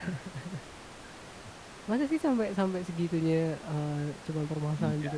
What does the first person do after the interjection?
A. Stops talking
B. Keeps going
A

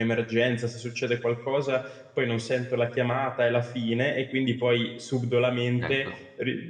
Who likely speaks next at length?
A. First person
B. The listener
A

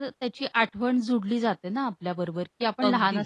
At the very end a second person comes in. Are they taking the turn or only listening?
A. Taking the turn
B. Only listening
B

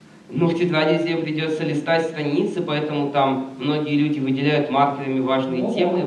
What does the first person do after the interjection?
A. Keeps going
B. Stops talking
A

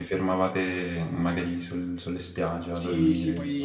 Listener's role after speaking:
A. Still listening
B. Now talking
B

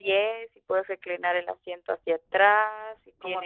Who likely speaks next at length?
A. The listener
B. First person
B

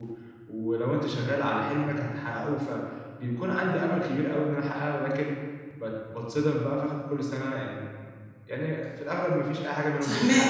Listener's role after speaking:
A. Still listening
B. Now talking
B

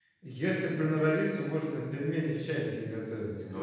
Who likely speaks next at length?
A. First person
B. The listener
B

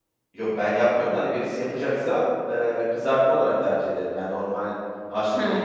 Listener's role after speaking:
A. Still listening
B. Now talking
B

